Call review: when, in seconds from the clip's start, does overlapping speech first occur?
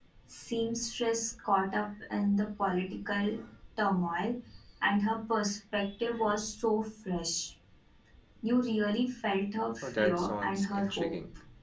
9.8 s

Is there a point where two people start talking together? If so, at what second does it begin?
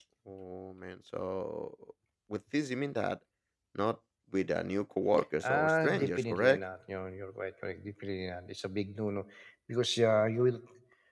5.4 s

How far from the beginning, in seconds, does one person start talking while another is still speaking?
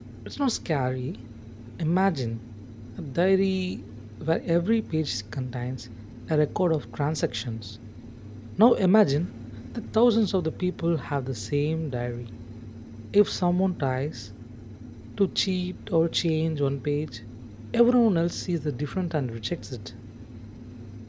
none

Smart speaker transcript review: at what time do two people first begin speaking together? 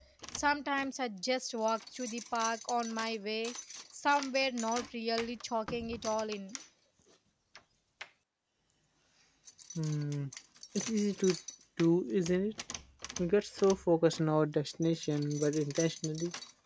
none

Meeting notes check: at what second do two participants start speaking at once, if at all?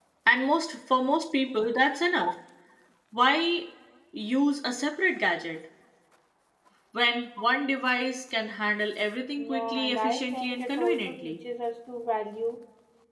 9.4 s

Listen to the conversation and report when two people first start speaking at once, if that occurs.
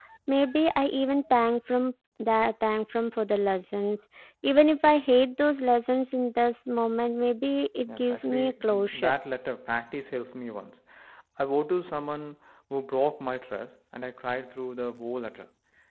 7.9 s

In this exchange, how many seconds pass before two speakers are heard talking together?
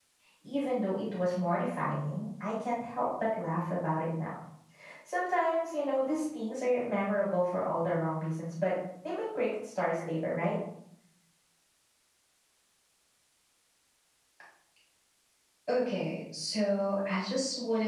none

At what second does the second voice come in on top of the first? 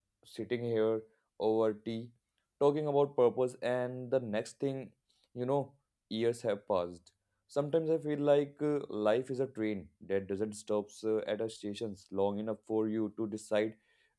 none

